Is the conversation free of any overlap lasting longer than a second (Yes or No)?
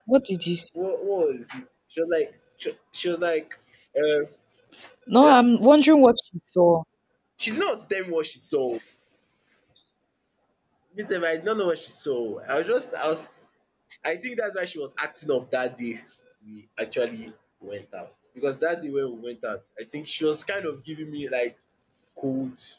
Yes